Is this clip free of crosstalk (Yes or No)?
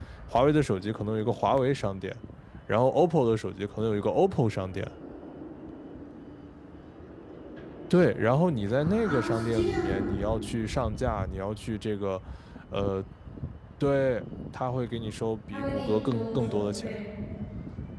No